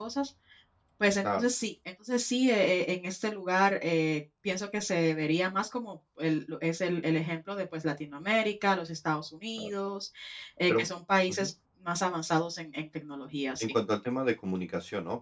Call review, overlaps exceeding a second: none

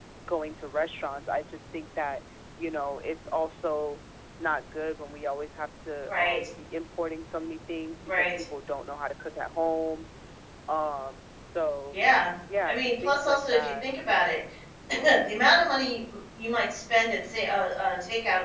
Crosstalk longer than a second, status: present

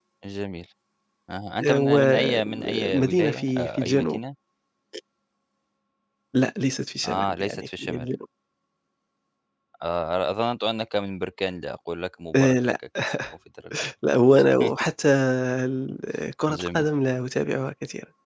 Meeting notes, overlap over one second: present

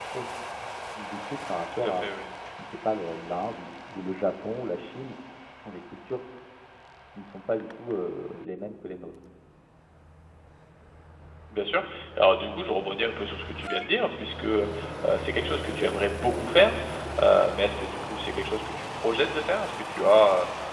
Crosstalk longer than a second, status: none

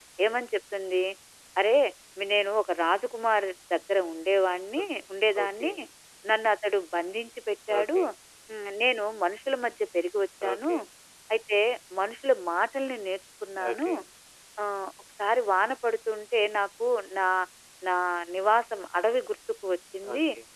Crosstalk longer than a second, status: none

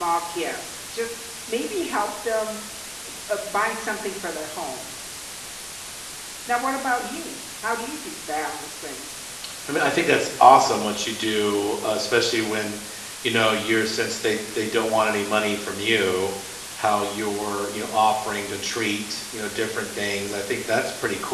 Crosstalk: none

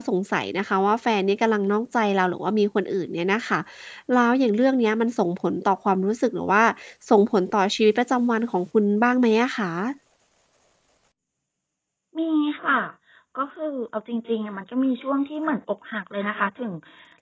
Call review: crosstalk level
none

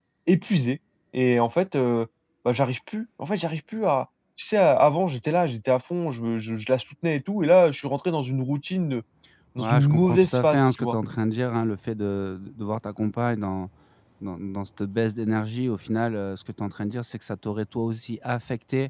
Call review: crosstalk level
present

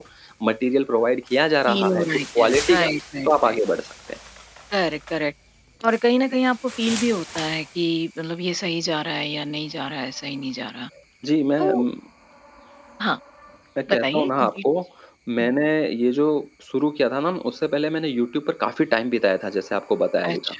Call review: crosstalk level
present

